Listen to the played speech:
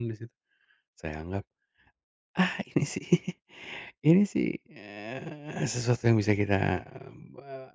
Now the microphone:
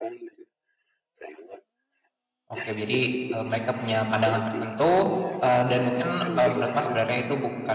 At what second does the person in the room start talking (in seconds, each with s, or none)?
2.5 s